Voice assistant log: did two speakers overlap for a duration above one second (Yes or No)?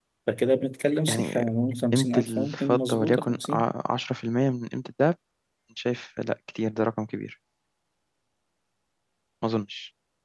Yes